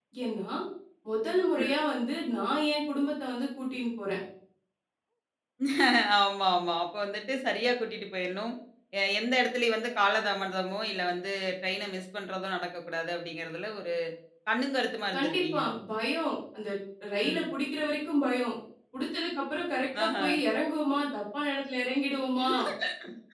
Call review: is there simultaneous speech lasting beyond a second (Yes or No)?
No